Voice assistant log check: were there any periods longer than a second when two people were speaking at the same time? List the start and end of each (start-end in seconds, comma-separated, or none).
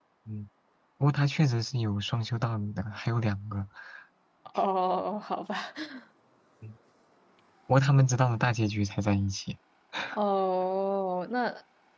none